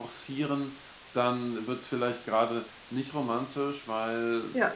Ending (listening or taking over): listening